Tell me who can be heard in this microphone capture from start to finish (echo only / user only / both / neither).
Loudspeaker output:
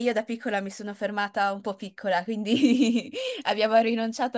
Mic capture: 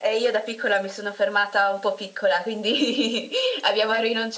echo only